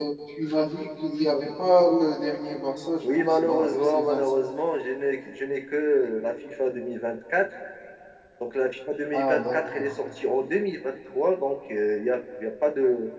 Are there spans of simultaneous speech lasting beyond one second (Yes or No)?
Yes